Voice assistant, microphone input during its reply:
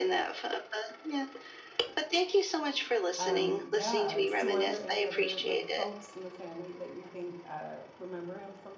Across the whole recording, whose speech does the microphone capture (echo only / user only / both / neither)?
both